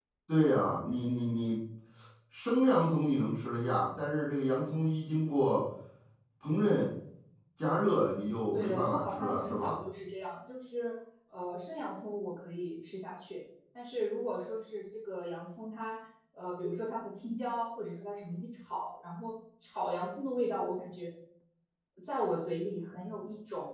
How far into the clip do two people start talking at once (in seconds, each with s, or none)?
8.5 s